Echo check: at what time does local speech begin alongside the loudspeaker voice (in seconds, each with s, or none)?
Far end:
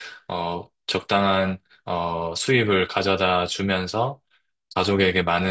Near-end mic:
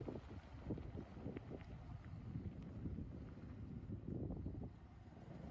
none